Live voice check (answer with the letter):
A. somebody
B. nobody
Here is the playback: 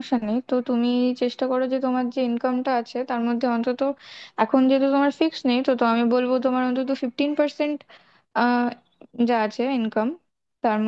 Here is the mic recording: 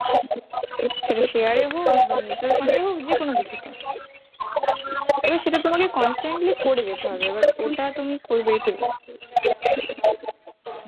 A